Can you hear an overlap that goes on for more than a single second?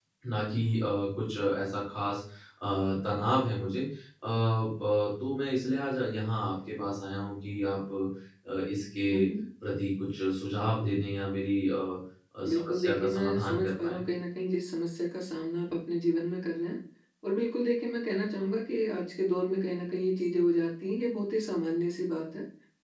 Yes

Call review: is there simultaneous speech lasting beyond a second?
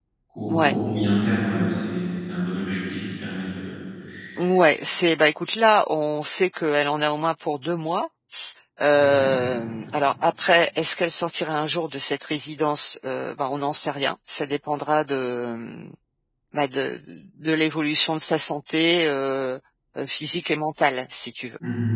No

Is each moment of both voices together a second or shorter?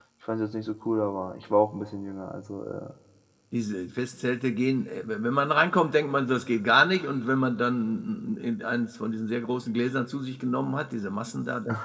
Yes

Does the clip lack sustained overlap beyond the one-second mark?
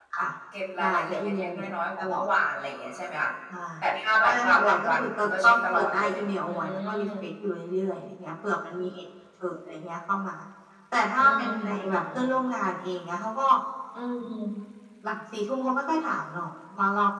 No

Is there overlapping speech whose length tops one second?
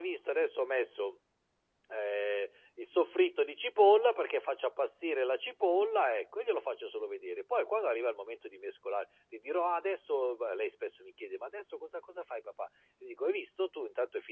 No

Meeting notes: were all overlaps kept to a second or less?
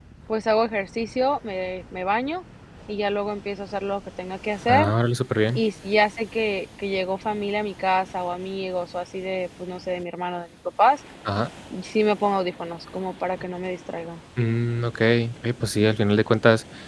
Yes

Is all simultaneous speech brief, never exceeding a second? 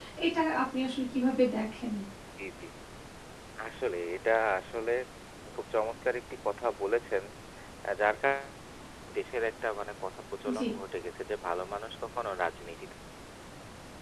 Yes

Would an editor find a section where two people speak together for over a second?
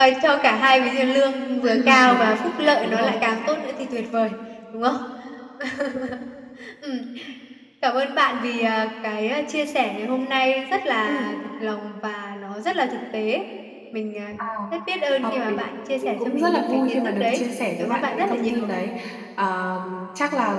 Yes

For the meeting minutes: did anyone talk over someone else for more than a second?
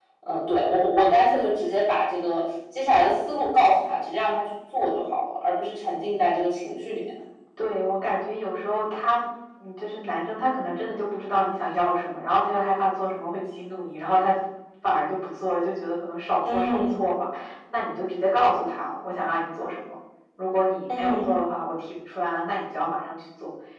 No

